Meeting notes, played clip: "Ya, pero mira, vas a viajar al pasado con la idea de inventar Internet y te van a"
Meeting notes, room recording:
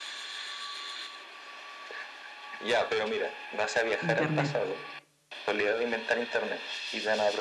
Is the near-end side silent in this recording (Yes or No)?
No